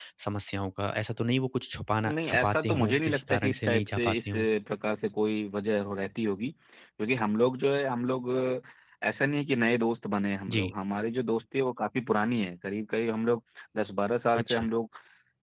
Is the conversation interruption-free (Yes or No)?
No